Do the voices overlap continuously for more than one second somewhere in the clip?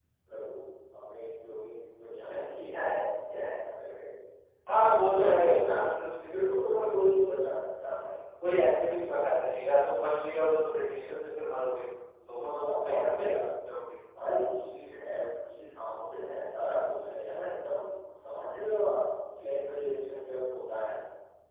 Yes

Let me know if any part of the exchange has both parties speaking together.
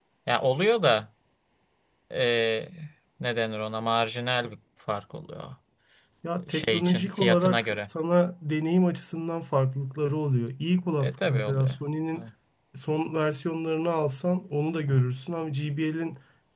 Yes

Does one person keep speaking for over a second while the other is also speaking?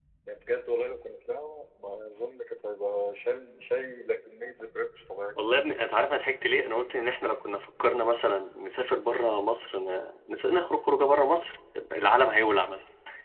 No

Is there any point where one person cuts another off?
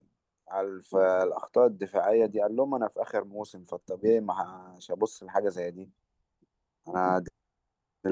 No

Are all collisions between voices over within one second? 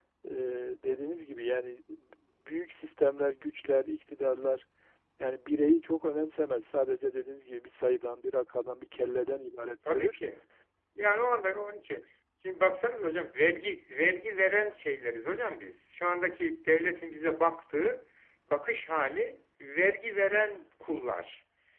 Yes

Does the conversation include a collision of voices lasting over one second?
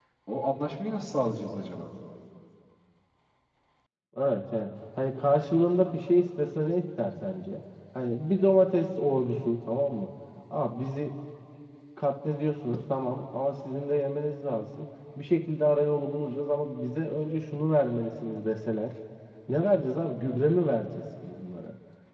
No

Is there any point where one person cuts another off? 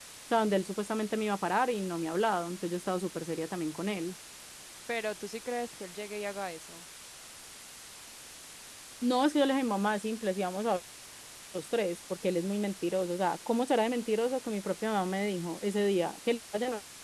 No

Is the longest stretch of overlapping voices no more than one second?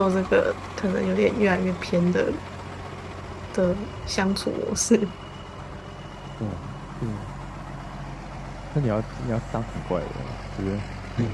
Yes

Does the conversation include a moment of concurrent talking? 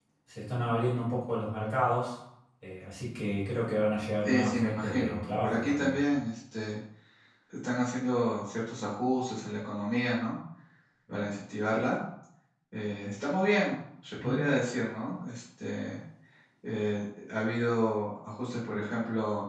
Yes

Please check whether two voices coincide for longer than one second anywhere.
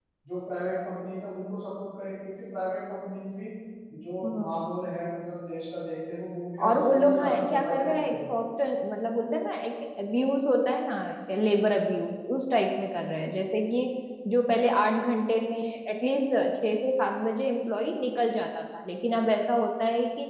Yes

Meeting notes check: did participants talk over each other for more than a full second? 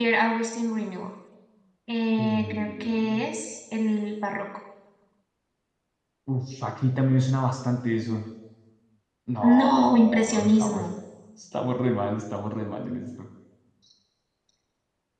Yes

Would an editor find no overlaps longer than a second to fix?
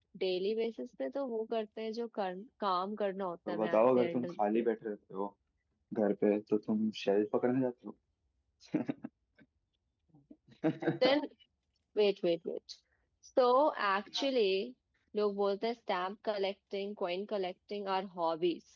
No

